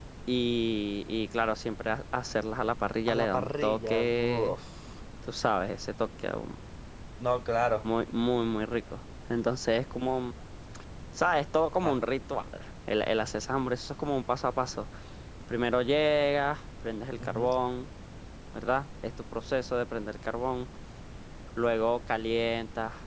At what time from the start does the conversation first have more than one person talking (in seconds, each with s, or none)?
3.1 s